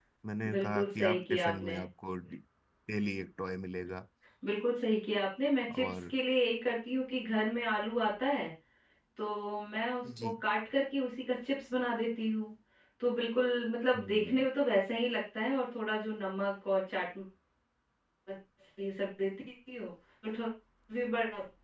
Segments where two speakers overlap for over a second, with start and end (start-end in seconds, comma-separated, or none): 0.5-1.8